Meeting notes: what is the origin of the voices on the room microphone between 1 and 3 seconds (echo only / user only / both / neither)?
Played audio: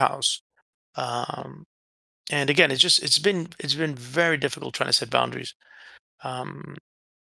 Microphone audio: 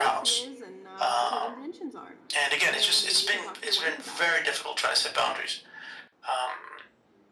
both